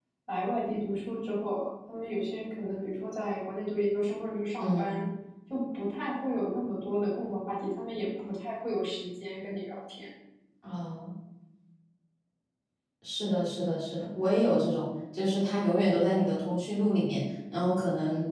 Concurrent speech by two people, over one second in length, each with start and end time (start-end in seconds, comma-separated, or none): none